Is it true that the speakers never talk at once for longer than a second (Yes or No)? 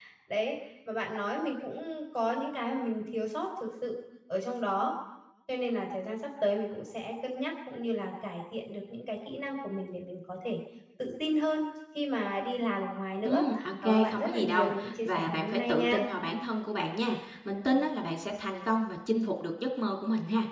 No